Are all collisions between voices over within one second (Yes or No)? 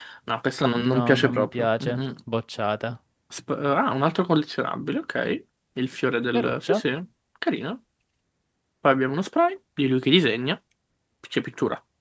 No